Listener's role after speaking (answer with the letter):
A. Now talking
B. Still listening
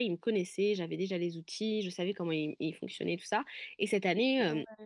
B